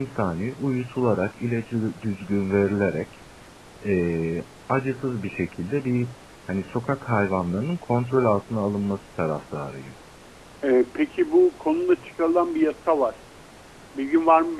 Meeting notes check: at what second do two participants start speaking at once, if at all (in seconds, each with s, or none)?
none